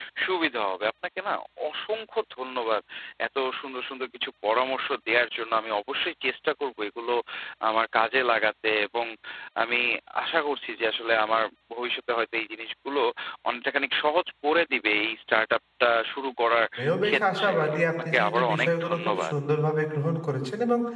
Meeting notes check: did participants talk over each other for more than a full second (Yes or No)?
Yes